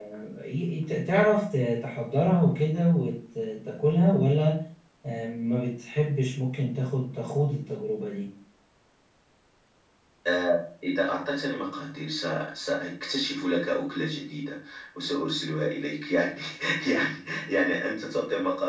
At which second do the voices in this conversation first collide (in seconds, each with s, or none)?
none